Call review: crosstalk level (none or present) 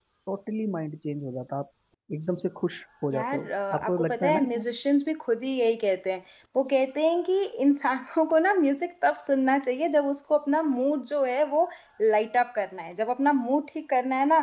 present